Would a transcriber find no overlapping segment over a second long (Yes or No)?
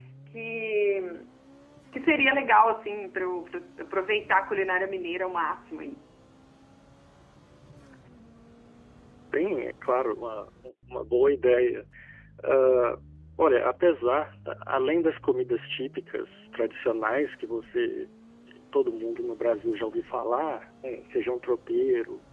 Yes